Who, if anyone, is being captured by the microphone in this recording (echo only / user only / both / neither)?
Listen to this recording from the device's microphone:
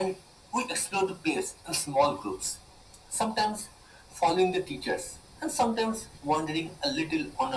echo only